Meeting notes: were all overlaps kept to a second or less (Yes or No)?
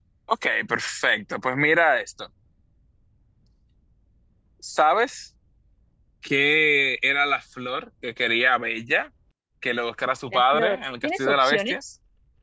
No